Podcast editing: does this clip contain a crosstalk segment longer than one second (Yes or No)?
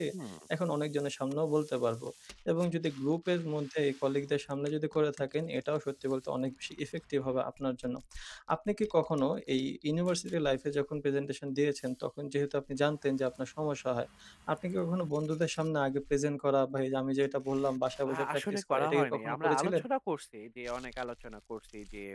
Yes